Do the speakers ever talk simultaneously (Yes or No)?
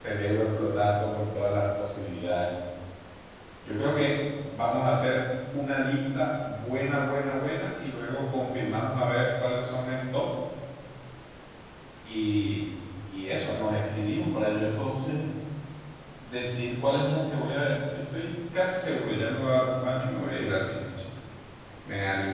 No